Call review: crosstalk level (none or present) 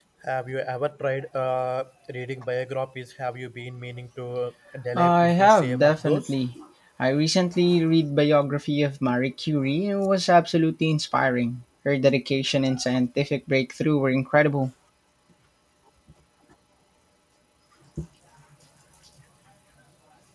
present